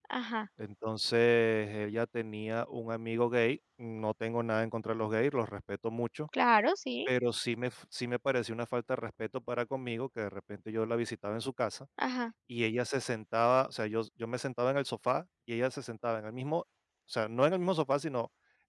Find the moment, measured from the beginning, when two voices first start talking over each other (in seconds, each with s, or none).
none